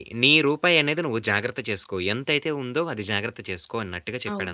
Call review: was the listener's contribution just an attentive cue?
No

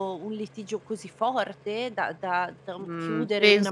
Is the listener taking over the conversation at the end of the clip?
Yes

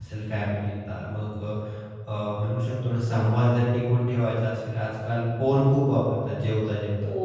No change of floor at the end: Yes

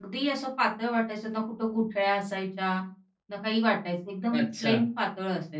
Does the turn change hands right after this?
No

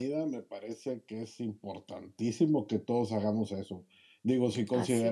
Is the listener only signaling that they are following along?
Yes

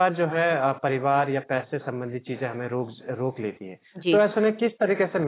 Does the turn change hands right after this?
No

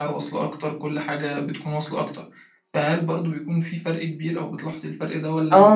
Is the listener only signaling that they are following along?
No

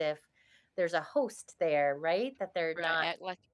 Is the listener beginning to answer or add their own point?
Yes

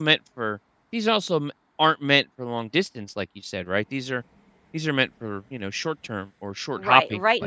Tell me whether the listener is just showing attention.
No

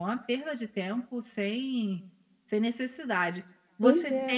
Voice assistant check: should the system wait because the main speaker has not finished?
Yes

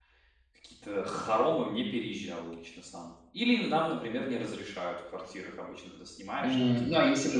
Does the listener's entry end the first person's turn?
Yes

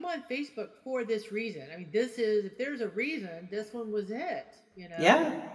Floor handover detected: Yes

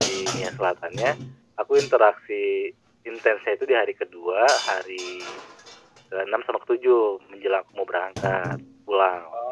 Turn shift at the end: Yes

